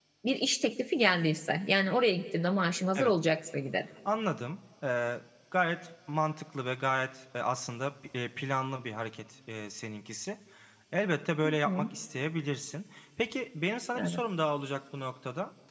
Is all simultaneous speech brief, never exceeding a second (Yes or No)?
Yes